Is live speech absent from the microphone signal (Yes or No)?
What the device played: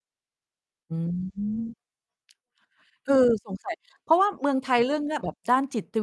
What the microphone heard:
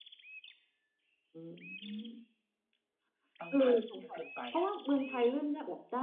No